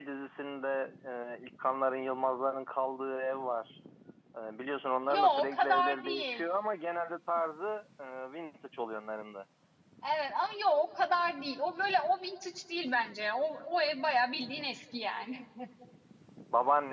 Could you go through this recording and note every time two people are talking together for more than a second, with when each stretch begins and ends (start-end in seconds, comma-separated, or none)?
5.1-6.4